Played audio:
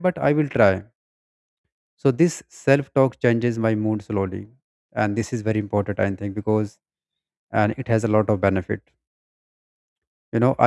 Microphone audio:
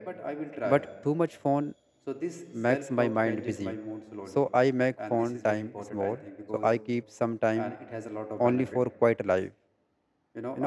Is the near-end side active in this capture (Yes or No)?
Yes